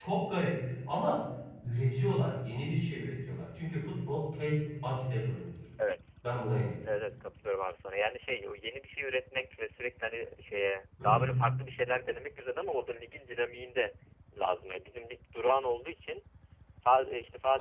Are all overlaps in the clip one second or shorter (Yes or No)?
Yes